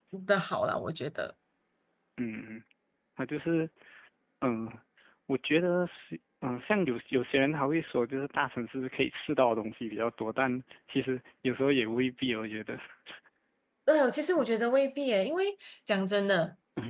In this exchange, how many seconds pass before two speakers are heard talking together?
none

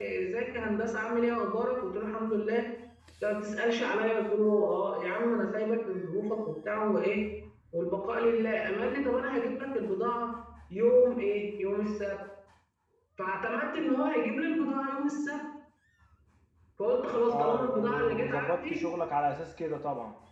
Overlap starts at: 17.3 s

